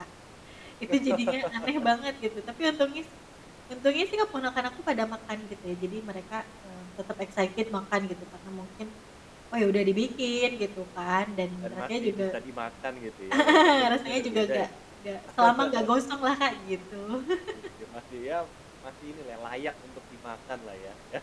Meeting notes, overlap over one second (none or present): present